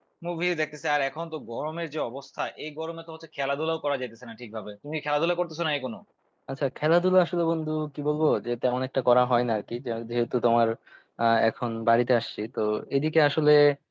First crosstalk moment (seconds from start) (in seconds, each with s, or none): none